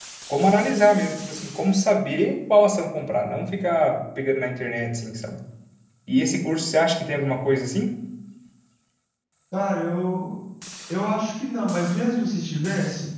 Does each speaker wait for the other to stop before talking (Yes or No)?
Yes